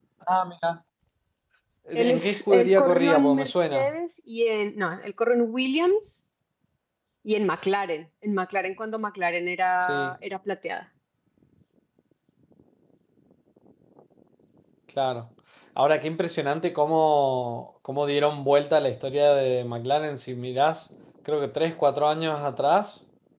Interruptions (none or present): present